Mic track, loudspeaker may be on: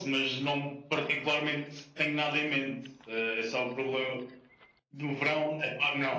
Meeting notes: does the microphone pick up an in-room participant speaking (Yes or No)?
No